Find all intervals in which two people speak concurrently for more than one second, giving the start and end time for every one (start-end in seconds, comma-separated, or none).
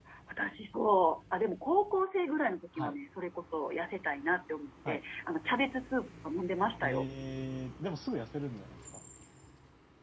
none